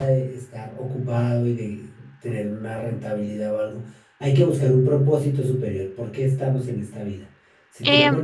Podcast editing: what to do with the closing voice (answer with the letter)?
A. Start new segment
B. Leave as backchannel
B